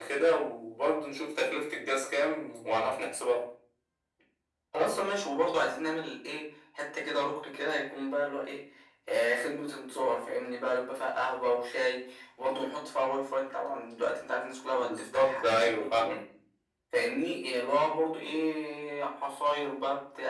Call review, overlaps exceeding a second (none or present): present